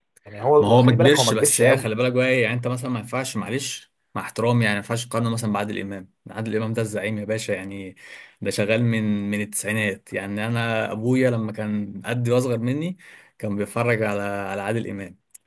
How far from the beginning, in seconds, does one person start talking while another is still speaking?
1 s

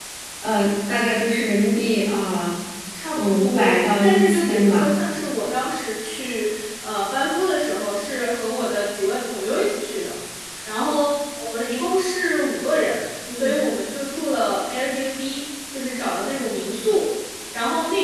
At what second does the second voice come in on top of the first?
3 s

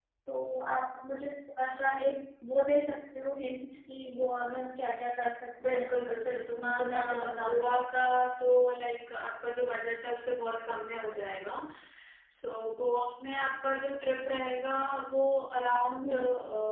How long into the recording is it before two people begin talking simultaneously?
6 s

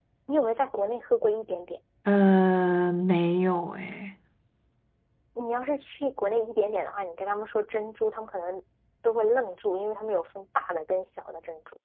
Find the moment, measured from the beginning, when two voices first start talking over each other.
none

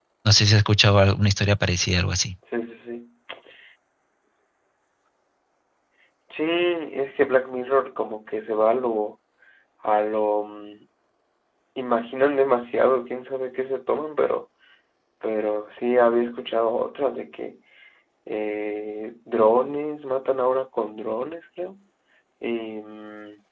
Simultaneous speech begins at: none

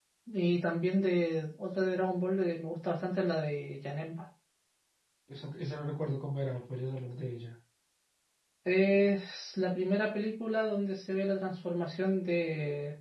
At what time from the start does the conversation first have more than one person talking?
none

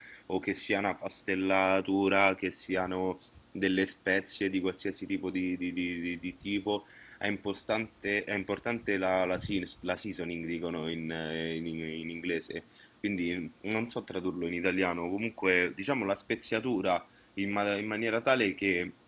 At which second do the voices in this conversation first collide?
none

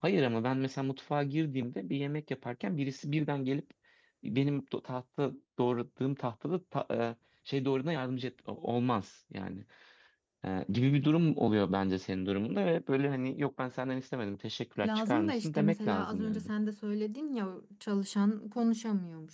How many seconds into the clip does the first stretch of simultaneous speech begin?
15 s

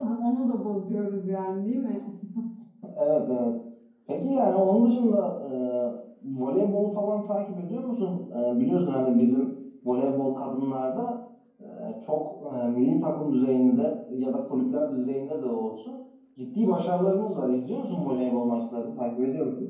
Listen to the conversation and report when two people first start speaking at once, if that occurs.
none

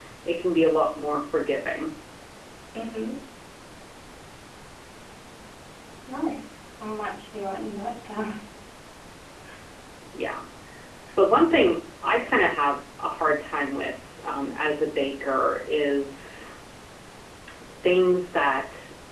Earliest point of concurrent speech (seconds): none

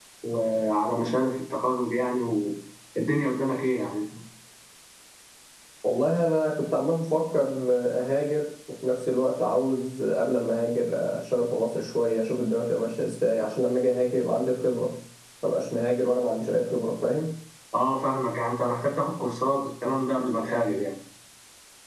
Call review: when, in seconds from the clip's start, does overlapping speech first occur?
none

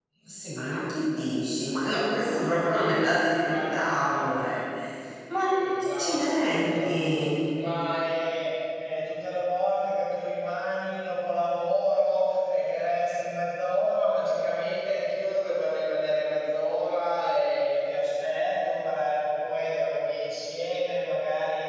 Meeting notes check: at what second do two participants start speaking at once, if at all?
2 s

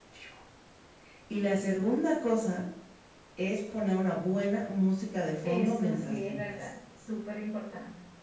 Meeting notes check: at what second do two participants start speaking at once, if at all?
5 s

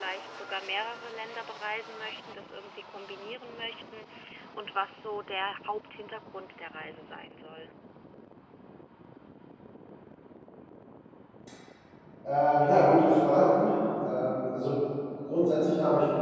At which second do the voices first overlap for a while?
none

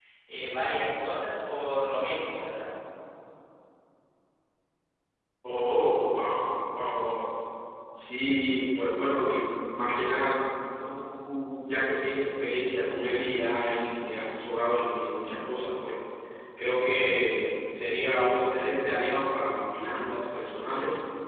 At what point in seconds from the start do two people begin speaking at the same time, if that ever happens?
none

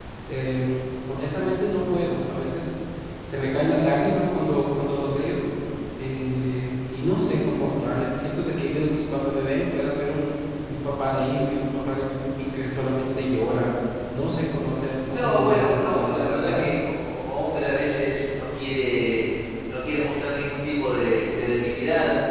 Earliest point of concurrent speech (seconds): 15 s

